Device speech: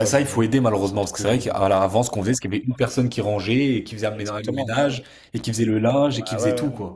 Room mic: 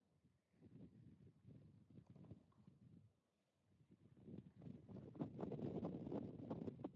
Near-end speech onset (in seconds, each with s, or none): none